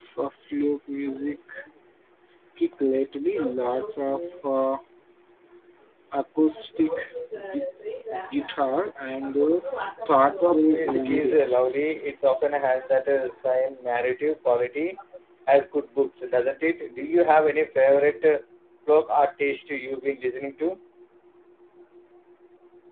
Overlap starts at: 10 s

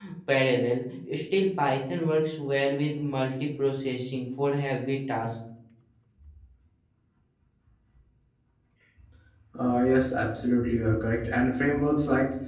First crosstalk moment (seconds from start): none

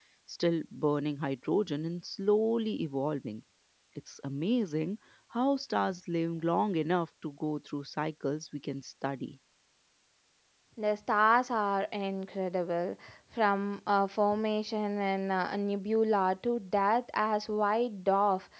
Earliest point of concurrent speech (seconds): none

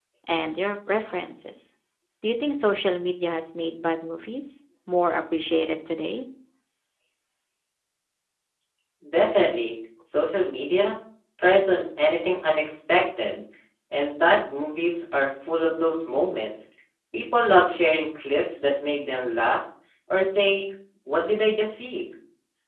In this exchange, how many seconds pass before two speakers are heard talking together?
none

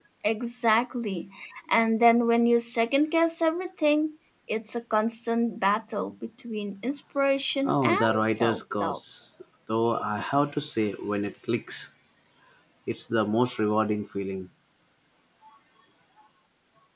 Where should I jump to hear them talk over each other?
8 s

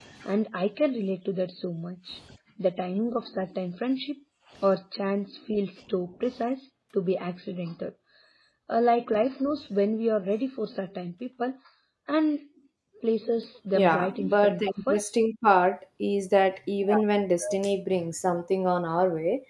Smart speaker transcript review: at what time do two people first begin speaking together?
14 s

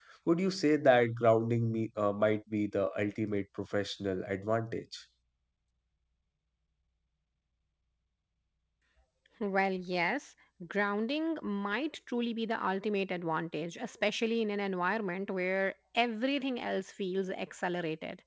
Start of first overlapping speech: none

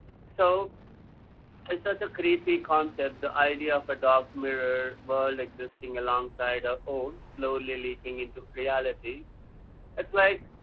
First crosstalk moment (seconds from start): none

